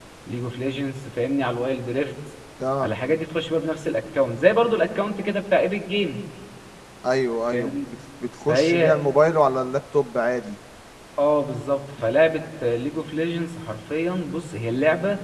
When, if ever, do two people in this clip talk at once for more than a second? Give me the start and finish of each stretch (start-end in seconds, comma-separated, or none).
none